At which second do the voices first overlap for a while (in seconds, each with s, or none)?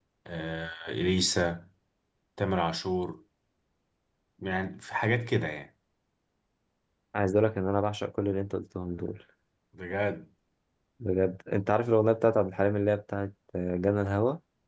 none